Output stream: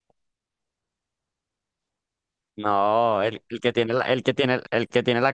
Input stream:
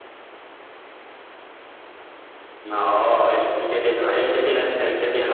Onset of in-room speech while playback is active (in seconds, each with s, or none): none